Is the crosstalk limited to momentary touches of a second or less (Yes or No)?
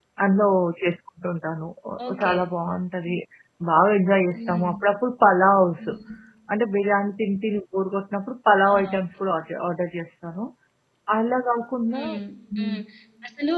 Yes